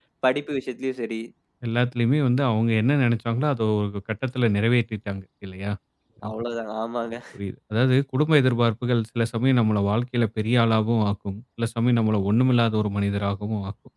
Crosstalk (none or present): none